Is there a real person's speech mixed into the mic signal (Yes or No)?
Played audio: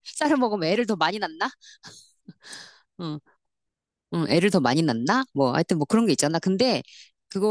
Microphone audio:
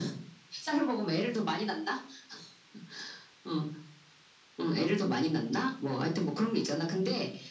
No